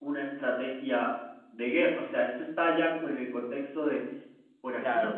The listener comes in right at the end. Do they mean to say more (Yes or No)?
Yes